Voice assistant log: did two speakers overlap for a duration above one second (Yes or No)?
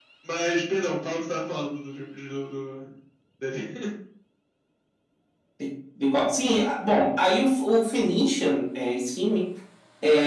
No